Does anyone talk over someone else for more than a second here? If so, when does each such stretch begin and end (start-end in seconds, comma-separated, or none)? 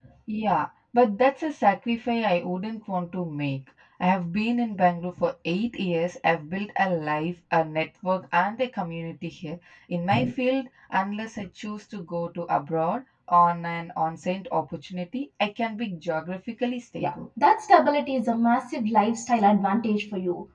none